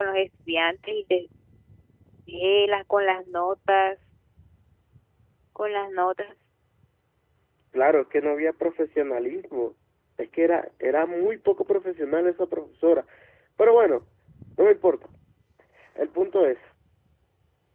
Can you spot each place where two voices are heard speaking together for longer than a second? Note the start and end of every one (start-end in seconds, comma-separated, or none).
none